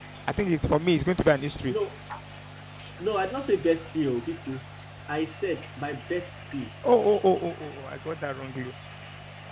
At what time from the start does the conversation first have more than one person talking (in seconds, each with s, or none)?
none